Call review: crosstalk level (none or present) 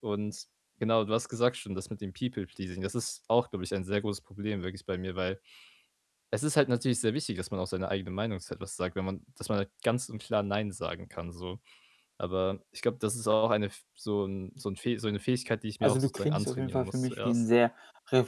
present